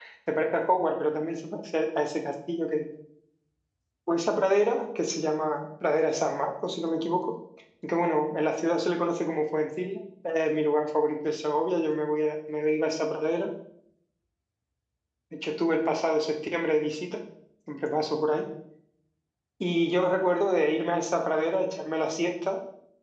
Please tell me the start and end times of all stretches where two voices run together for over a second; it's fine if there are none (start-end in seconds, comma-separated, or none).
none